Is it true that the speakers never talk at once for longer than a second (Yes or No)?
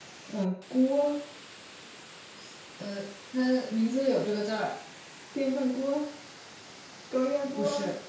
Yes